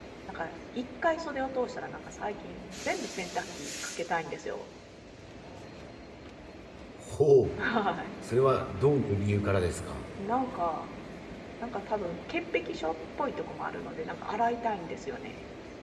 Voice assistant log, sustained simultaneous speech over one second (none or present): none